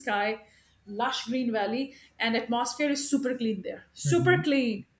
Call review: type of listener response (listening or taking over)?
listening